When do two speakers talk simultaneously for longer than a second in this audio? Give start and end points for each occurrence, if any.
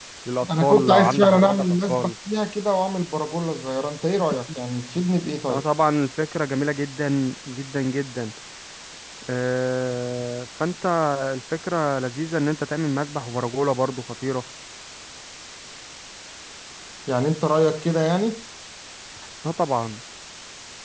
0.6-2.1

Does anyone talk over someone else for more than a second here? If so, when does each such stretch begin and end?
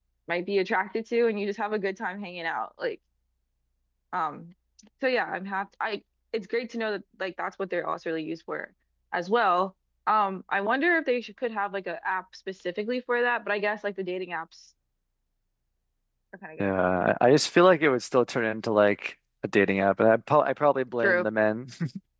none

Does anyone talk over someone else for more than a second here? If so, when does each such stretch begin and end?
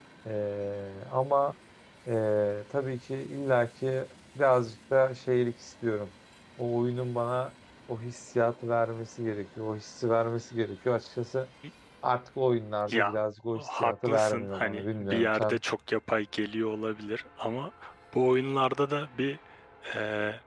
13.6-15.6

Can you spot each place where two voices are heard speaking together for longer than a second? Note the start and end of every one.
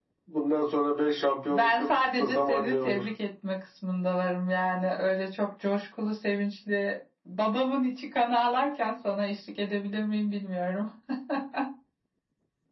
1.5-3.0

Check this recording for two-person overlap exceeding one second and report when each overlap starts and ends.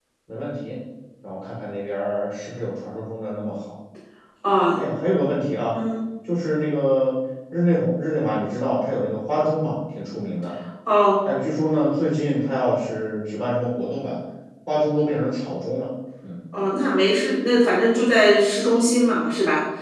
none

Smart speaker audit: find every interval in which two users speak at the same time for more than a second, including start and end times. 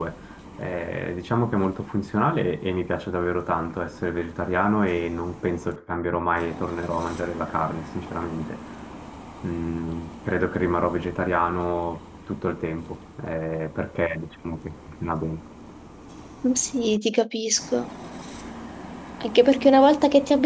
none

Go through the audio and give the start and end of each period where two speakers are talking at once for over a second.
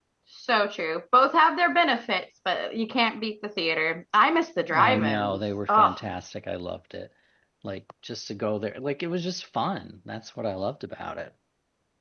4.8-6.0

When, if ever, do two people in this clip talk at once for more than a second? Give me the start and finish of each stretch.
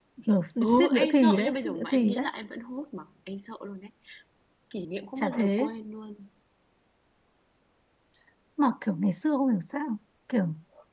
0.6-2.3

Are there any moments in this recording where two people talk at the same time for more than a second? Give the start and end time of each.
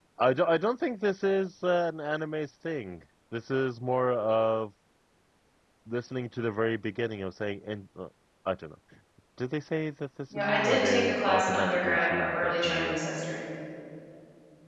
10.3-13.0

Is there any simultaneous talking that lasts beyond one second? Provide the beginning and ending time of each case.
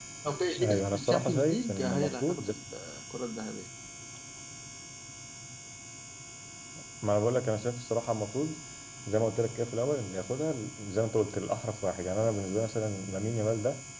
0.6-2.5

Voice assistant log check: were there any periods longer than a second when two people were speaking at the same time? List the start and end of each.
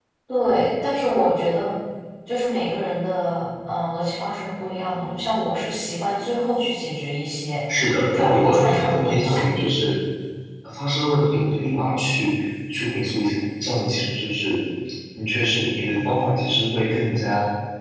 8.2-9.4

